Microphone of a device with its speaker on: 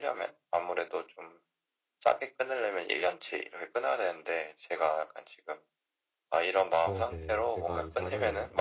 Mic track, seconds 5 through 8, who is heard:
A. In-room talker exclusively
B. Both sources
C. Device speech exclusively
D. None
B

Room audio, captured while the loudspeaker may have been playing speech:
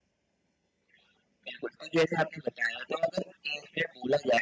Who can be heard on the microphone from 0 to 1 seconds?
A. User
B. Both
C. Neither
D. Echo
C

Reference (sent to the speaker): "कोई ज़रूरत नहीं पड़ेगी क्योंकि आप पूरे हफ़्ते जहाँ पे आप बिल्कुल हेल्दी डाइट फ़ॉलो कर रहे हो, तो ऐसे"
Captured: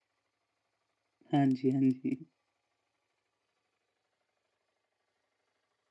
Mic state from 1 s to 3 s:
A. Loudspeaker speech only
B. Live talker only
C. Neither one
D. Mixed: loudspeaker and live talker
B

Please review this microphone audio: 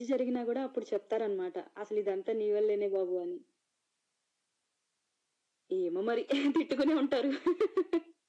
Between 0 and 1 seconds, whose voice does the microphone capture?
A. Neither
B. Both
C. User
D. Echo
D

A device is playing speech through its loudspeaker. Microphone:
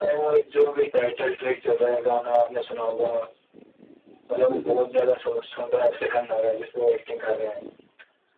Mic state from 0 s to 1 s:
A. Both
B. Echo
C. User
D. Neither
B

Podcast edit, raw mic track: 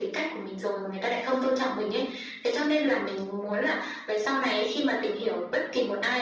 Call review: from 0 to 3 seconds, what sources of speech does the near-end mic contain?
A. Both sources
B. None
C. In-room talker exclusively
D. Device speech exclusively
D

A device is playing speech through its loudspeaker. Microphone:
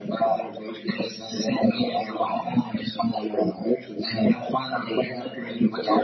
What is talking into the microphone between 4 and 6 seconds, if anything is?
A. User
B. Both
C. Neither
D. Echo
D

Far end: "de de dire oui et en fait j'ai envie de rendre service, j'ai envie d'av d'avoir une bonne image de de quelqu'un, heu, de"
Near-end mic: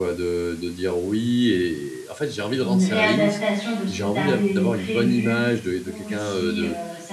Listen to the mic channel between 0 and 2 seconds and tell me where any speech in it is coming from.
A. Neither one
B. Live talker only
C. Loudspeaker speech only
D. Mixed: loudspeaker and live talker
C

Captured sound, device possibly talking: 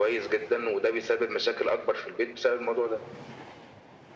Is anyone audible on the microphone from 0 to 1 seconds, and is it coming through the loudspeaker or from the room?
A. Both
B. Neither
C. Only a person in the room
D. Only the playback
D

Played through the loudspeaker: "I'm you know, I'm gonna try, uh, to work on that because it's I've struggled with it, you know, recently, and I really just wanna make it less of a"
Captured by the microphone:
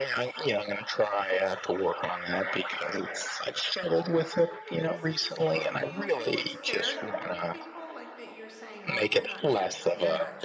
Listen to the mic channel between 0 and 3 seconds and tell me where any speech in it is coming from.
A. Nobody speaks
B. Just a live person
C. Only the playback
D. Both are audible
C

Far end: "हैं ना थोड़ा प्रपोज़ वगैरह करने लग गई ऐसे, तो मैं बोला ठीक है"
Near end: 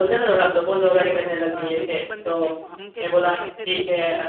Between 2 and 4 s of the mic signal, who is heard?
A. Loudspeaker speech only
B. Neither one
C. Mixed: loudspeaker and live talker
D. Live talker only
C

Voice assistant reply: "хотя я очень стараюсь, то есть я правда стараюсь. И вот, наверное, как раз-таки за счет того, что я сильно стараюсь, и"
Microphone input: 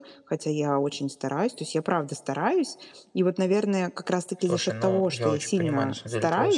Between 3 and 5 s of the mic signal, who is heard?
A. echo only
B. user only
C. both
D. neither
C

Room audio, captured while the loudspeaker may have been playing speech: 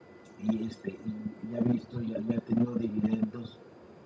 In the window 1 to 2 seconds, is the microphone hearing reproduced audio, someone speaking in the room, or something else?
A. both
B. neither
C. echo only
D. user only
C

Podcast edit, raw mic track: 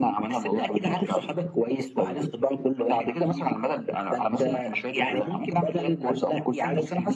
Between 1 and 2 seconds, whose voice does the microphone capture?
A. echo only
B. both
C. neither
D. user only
A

